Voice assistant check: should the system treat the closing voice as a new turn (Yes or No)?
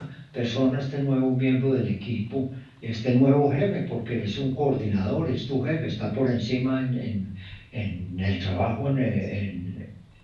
No